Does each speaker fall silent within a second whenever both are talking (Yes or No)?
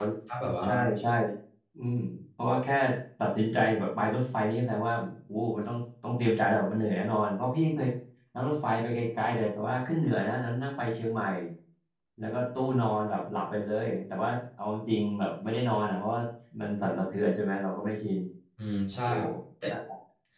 Yes